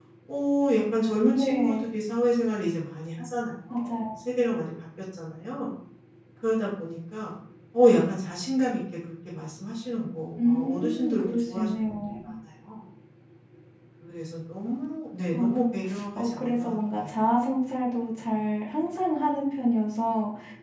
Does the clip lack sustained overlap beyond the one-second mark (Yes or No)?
No